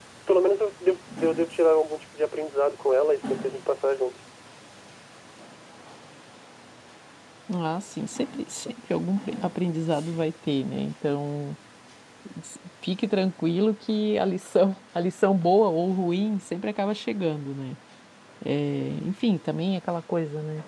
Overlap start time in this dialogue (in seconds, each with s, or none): none